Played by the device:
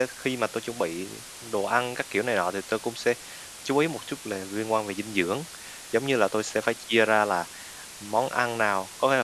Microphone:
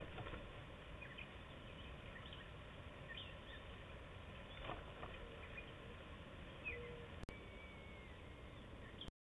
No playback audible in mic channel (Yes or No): Yes